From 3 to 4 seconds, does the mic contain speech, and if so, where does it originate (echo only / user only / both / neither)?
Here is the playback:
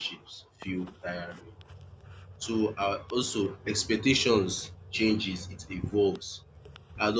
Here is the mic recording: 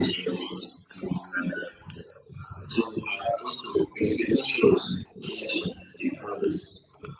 echo only